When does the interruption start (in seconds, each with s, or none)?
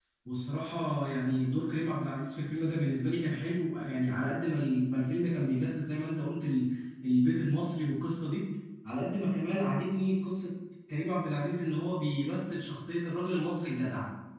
none